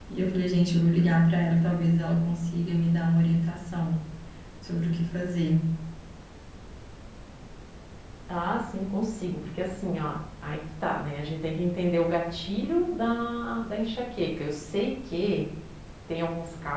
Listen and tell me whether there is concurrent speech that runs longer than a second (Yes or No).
No